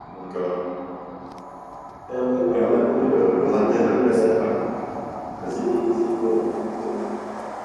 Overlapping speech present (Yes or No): Yes